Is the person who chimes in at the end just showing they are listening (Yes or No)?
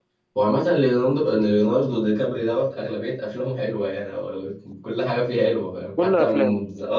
Yes